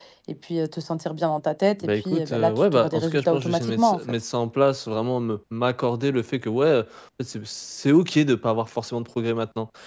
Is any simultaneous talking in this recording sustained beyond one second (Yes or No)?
Yes